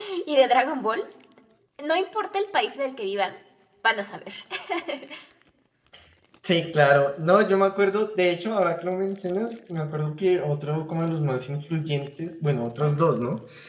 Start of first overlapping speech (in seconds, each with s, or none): none